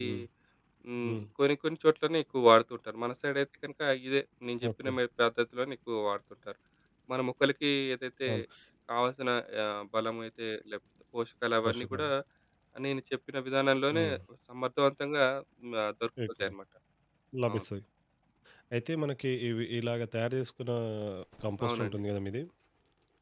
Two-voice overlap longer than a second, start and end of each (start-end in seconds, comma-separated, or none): none